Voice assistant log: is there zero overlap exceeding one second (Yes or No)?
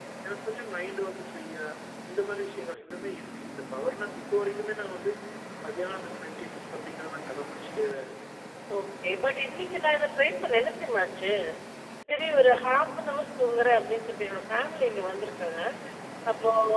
Yes